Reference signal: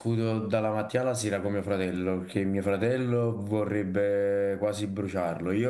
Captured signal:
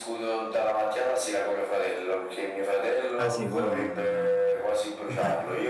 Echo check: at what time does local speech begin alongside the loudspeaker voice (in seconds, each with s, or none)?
3.2 s